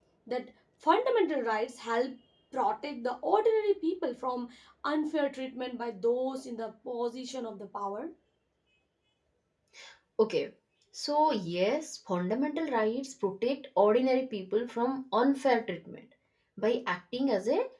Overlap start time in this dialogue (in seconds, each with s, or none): none